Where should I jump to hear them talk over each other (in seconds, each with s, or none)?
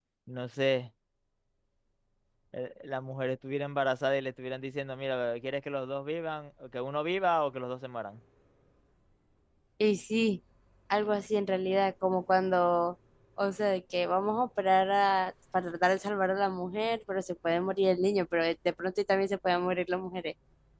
none